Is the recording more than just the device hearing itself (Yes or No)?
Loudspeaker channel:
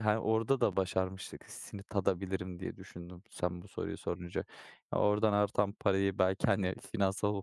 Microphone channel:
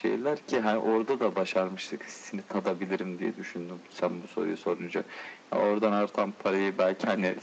No